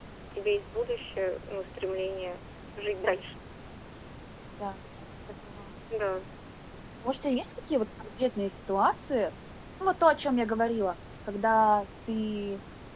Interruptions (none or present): none